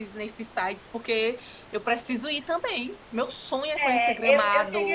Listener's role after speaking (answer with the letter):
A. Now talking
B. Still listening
A